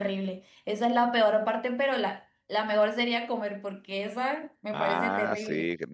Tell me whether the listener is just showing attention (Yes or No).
No